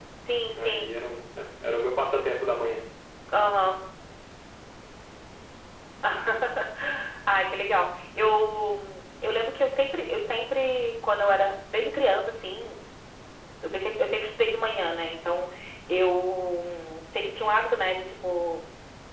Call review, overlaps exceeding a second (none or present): none